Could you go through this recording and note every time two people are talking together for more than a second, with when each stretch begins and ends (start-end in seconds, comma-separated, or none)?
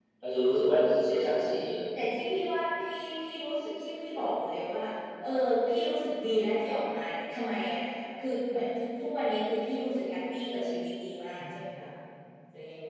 none